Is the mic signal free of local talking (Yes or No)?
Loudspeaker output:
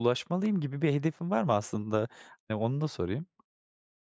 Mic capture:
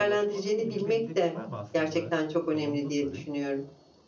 No